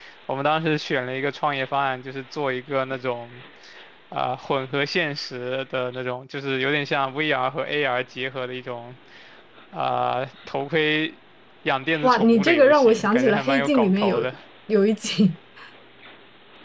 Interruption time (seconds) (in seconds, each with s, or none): 12.0 s